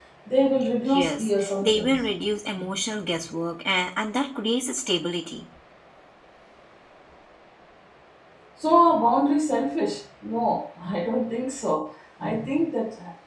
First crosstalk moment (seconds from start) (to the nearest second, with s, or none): 1 s